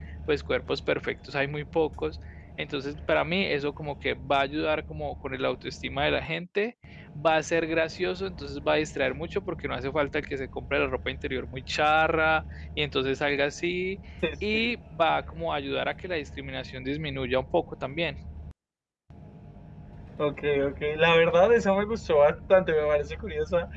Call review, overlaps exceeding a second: none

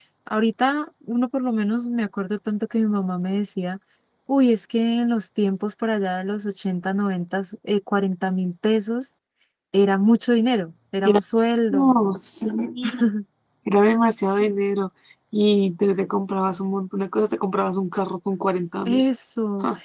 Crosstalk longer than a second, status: none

